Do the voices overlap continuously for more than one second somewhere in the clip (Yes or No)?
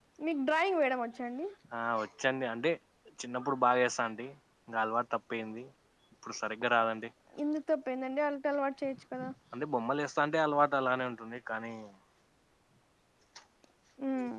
No